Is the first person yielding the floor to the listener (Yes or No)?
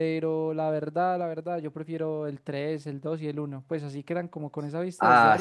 Yes